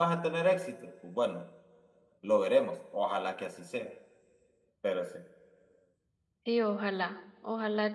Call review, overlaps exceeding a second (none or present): none